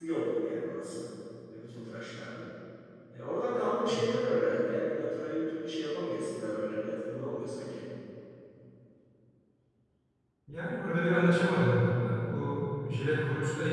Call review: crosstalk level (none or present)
none